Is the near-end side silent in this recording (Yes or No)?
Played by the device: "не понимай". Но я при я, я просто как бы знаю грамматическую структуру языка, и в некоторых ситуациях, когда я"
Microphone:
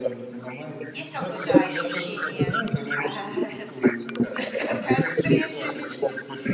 No